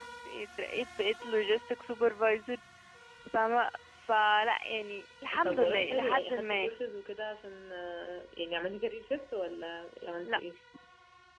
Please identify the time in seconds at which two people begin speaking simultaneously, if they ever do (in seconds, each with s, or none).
5.3 s